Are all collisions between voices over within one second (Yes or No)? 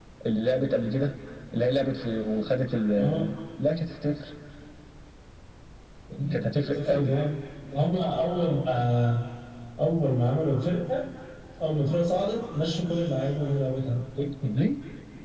Yes